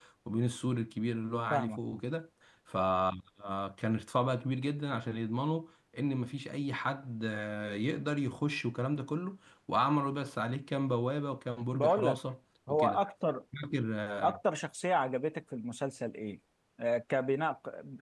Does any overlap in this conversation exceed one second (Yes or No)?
No